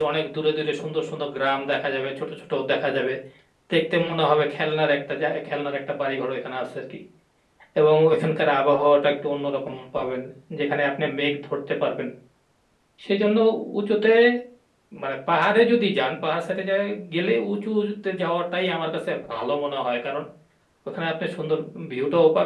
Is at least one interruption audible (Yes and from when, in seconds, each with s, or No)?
No